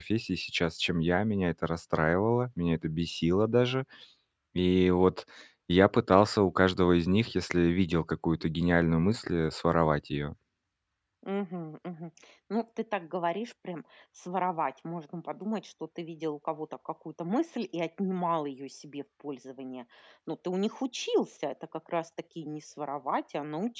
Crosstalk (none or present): none